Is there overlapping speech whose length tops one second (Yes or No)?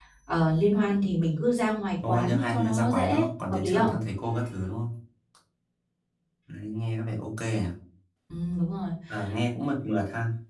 Yes